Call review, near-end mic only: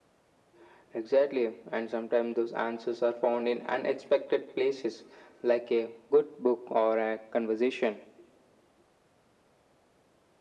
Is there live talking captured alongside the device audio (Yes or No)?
No